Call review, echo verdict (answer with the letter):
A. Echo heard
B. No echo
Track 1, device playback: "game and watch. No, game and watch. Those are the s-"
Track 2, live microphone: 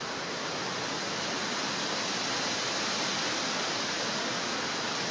B